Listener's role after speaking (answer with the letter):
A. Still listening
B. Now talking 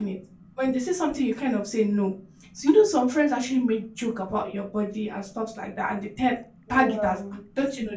A